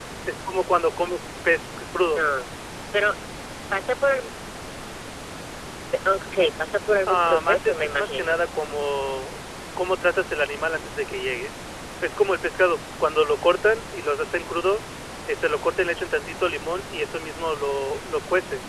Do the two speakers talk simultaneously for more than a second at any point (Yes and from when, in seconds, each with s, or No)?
Yes, from 7.1 s